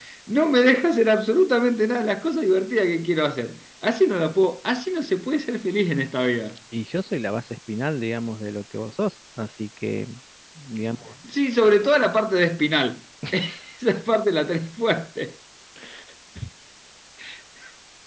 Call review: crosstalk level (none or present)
none